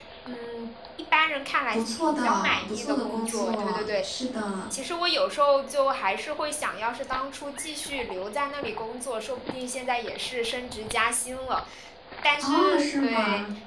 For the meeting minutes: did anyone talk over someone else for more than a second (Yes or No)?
Yes